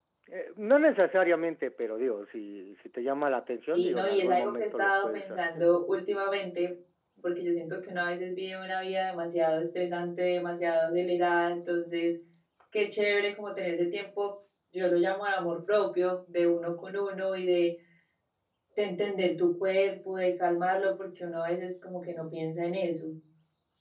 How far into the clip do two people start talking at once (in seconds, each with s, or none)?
3.7 s